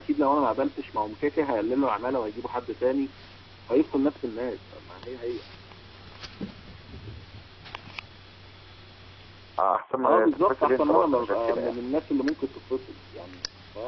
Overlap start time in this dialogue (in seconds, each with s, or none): 10.0 s